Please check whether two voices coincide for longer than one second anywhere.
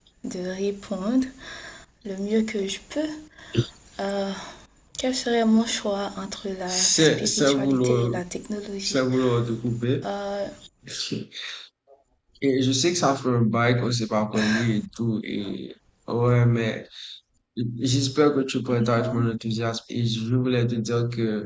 Yes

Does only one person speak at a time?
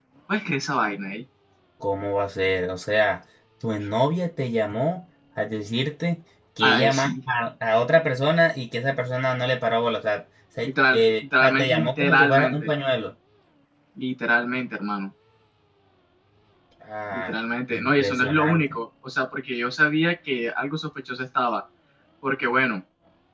No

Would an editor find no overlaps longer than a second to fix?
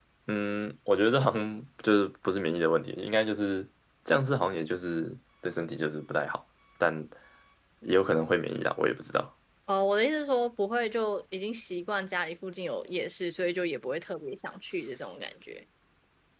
Yes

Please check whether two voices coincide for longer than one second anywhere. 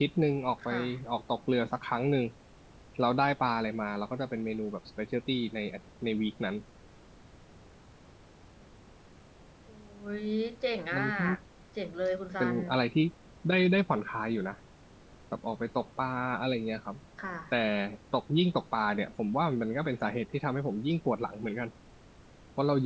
No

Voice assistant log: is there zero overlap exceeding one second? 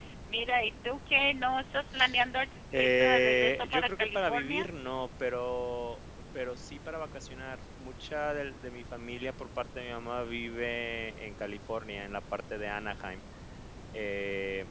No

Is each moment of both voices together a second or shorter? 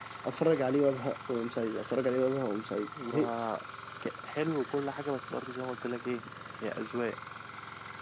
Yes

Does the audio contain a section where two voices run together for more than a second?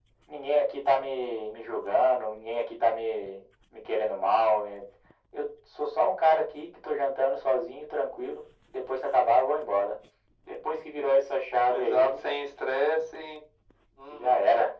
No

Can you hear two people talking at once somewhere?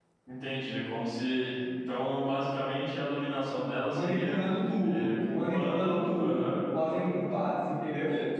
Yes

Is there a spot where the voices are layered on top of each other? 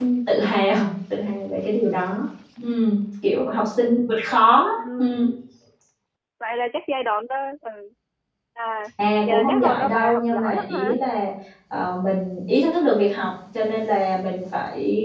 Yes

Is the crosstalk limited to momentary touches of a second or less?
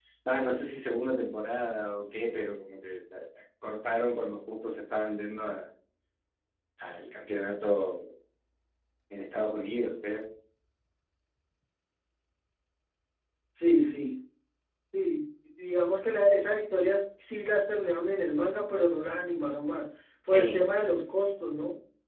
Yes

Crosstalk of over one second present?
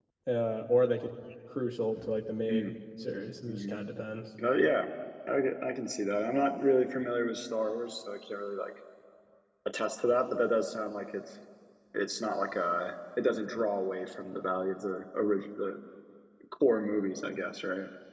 No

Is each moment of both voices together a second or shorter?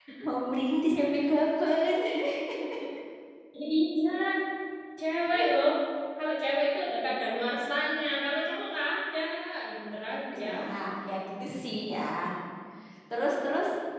Yes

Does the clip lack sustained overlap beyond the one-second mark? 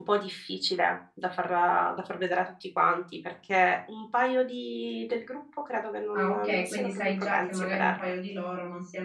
No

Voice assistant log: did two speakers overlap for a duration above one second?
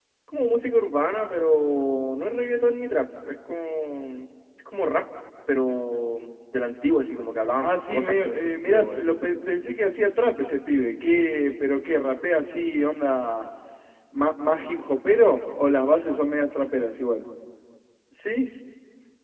Yes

